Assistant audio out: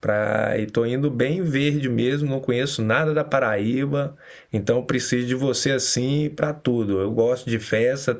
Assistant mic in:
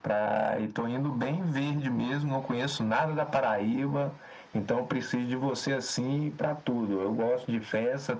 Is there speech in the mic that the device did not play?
No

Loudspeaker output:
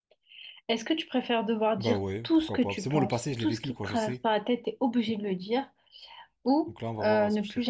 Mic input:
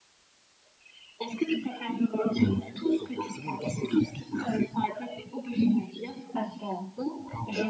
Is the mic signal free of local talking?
No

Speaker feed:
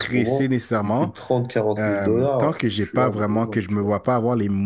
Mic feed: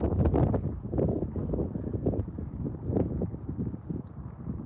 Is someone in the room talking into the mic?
No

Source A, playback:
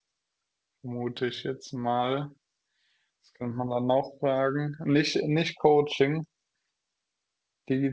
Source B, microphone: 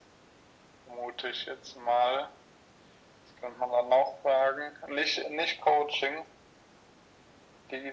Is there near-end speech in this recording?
No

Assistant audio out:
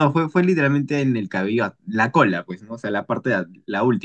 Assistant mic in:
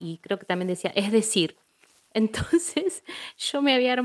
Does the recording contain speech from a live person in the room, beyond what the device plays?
Yes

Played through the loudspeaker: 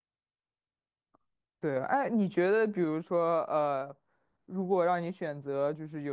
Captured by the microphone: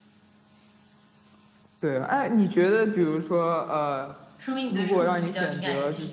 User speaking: Yes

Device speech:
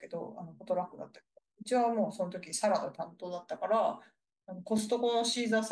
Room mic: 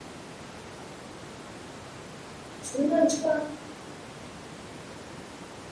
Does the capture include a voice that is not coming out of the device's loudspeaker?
Yes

